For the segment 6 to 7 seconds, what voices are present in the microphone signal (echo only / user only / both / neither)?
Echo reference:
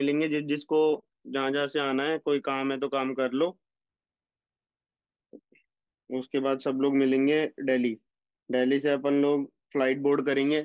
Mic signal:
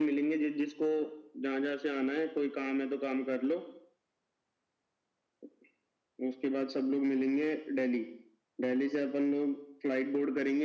echo only